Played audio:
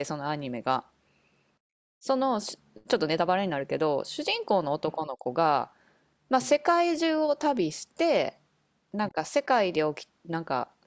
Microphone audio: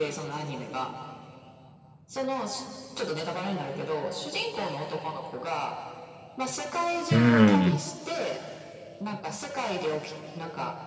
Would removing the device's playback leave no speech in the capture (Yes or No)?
No